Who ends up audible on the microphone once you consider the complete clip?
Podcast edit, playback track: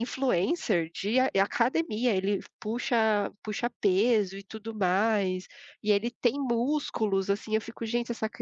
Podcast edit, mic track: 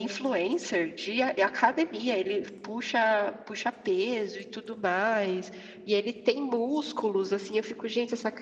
echo only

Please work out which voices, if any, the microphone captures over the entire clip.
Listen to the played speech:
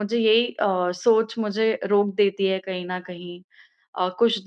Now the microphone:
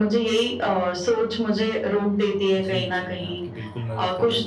both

